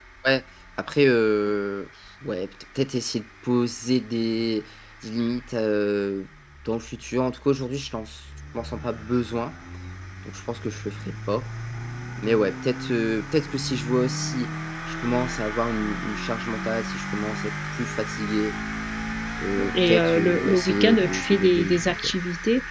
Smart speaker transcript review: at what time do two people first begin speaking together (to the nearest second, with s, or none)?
20 s